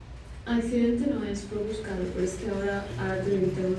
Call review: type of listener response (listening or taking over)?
listening